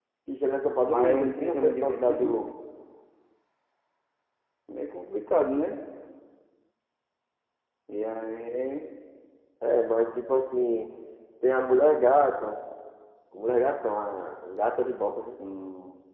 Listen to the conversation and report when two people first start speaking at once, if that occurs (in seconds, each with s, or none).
0.9 s